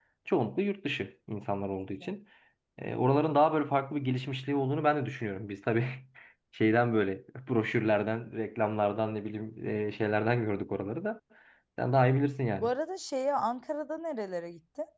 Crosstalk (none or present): none